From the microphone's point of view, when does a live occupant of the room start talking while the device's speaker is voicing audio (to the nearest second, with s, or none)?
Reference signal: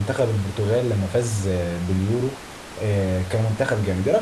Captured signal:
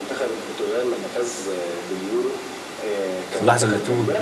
3 s